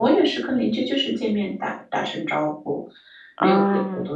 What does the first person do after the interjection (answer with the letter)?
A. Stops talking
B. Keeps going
B